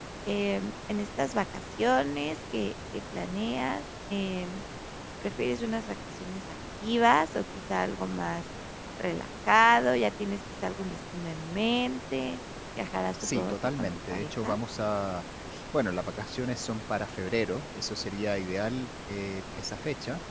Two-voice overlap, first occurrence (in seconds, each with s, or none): 13.2 s